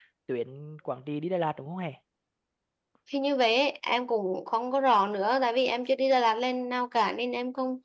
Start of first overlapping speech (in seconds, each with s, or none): none